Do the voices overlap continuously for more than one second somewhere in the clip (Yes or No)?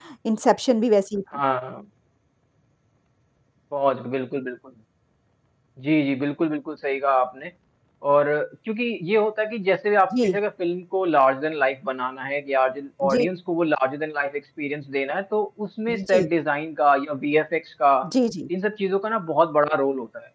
No